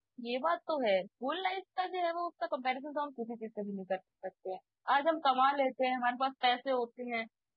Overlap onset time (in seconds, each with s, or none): none